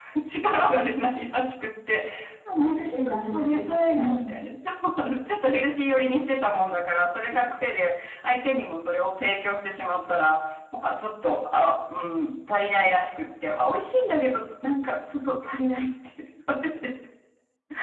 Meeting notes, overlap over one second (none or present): present